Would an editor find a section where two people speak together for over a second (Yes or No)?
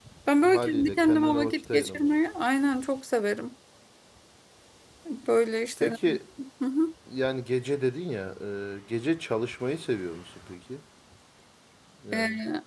Yes